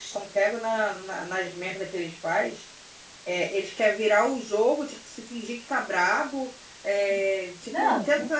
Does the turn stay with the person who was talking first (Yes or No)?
Yes